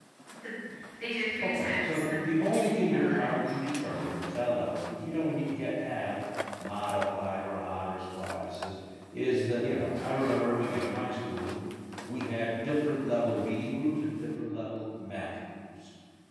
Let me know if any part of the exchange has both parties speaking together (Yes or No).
Yes